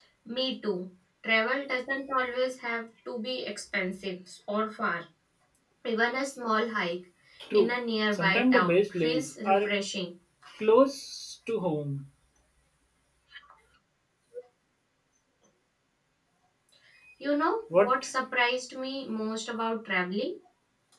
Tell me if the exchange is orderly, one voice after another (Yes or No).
No